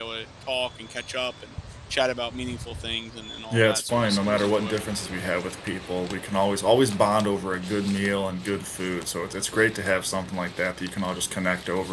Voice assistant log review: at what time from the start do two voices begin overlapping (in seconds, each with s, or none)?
3.5 s